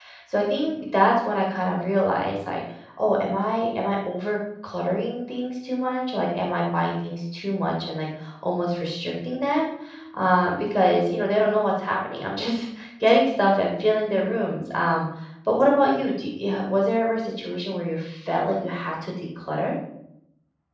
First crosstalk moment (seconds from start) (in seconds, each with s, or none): none